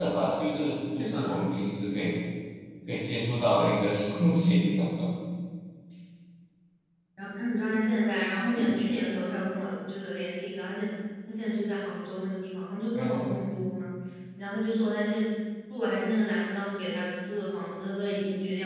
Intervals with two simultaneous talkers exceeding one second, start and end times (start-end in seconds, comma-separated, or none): none